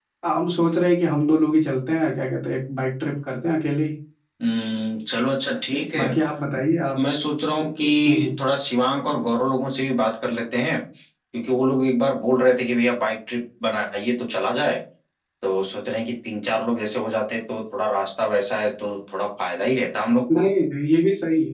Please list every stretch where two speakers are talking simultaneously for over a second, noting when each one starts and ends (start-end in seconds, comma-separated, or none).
none